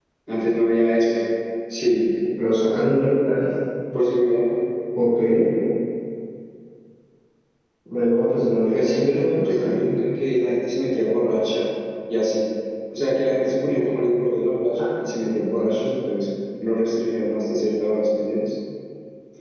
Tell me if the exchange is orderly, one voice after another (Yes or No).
No